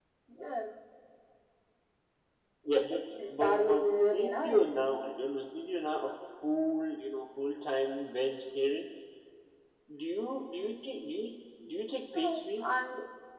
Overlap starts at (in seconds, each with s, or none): 3.4 s